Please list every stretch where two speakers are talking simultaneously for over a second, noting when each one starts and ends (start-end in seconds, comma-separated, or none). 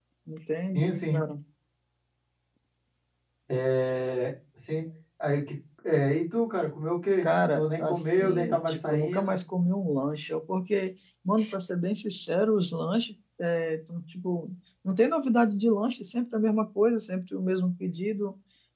7.2-9.3